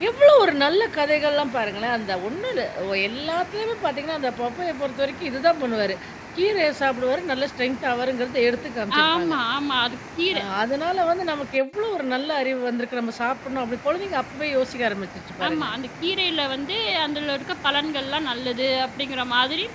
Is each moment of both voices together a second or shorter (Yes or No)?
Yes